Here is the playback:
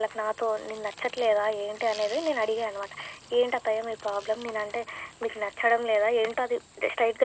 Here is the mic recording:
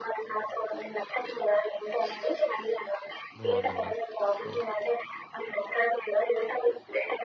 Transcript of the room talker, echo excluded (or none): బావుందండి అసల.